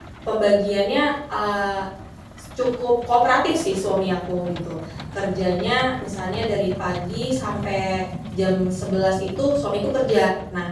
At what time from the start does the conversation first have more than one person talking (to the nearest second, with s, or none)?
none